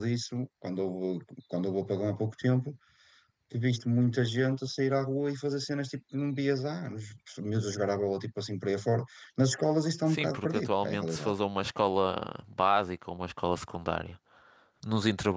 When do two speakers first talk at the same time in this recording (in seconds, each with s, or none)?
10.1 s